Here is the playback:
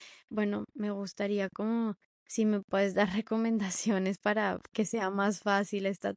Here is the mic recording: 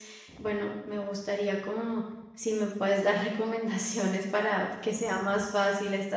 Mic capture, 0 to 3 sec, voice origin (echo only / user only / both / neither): echo only